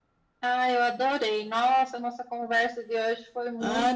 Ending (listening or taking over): taking over